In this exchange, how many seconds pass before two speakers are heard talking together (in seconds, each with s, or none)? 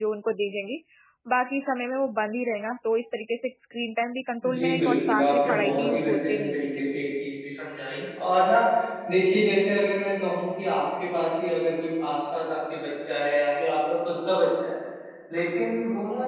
4.4 s